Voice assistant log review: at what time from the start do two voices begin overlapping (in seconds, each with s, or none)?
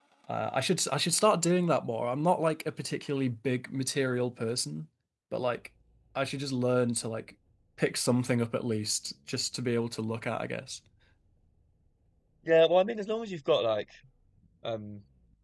none